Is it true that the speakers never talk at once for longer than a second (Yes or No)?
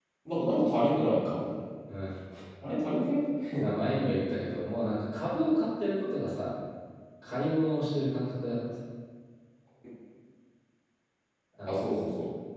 Yes